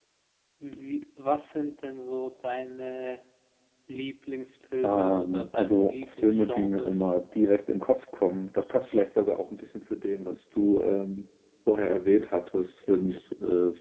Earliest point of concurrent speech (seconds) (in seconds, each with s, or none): 4.8 s